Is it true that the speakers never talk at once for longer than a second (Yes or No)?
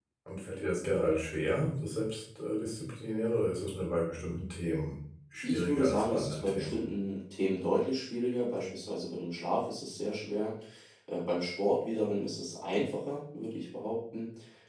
No